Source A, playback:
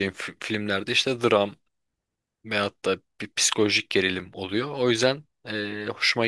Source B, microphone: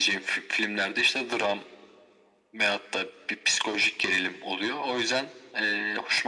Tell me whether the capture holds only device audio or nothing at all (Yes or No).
Yes